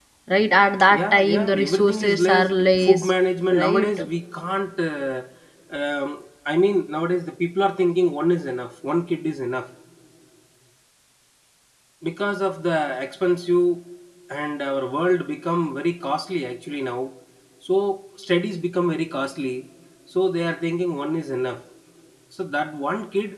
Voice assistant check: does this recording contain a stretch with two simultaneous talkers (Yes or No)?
Yes